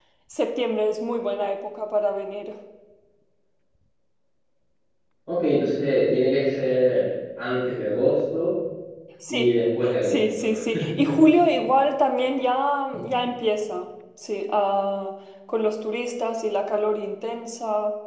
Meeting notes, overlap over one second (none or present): none